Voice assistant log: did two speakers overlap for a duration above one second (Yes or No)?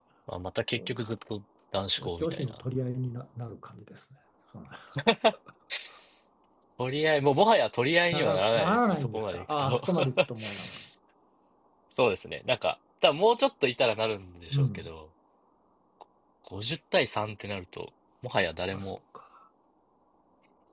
Yes